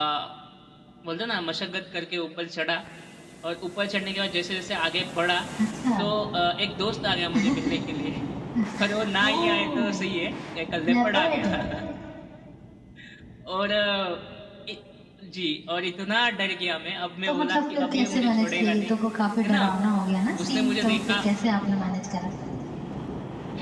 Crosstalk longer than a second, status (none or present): present